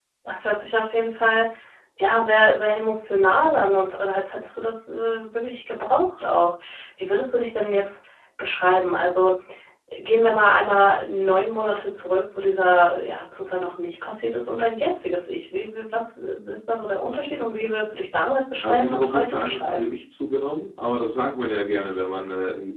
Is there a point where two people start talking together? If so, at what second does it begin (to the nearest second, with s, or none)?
19 s